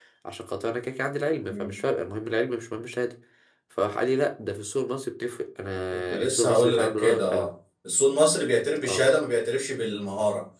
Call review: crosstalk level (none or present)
present